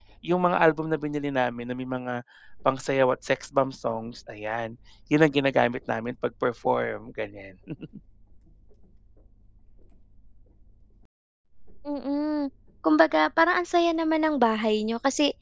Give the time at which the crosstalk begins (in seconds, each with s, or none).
none